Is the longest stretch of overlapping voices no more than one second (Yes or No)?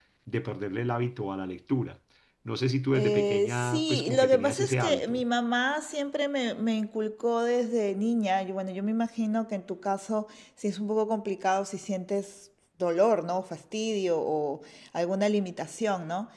No